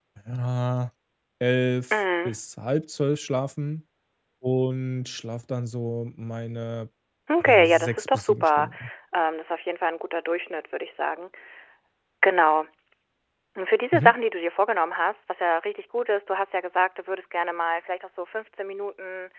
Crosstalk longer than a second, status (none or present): present